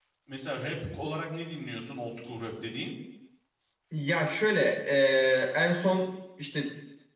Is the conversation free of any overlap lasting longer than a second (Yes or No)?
Yes